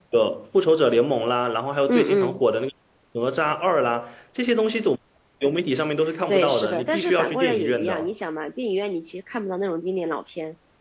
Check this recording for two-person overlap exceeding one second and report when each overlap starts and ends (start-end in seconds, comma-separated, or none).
6.3-8.1